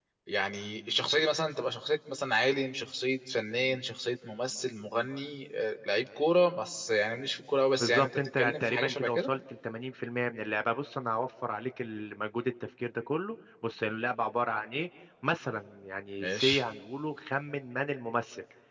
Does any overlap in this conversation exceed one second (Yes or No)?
Yes